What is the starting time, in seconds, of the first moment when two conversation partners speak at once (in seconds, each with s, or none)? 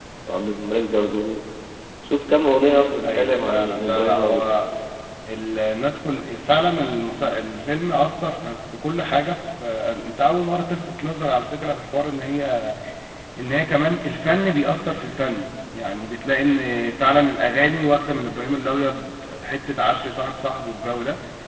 3.0 s